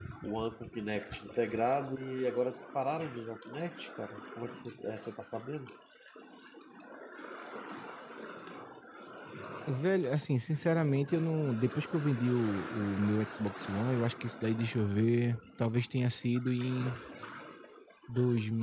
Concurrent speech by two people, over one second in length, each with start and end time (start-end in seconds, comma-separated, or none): none